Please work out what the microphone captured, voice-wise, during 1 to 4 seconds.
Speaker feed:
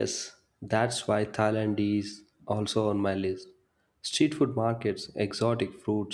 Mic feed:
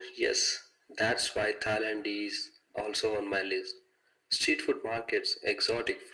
echo only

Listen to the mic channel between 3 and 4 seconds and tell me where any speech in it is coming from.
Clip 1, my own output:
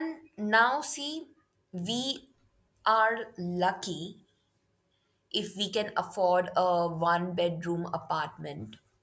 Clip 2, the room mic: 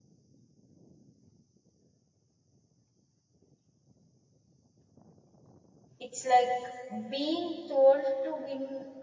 neither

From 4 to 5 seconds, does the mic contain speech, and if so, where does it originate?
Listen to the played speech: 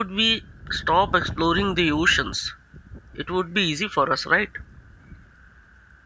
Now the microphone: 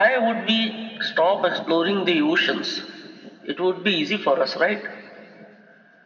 echo only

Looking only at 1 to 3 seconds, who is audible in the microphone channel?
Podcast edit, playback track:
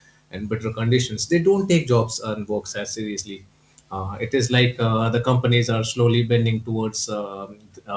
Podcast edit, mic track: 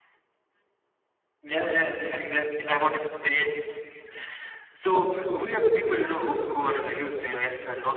user only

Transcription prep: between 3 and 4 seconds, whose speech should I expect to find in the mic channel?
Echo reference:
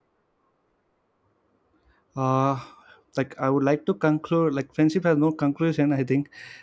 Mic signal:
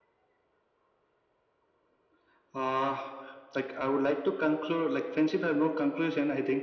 echo only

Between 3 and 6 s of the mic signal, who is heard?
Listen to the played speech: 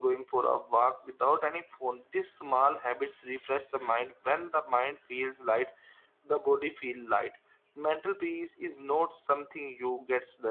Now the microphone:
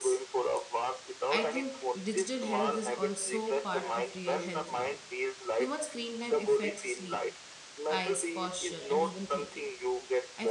both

